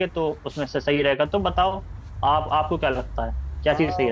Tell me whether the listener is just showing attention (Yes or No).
No